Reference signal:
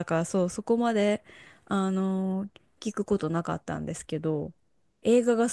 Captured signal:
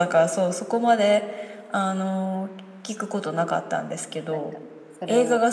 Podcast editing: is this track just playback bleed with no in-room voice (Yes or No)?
No